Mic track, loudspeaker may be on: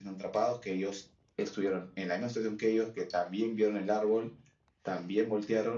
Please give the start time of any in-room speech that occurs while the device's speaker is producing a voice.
none

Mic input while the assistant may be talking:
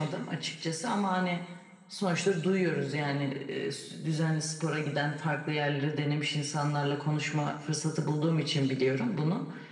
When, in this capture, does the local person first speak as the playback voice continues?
none

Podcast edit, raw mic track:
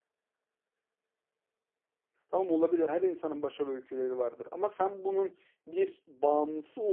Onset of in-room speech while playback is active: 2.3 s

